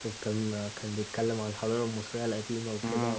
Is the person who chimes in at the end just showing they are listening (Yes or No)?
Yes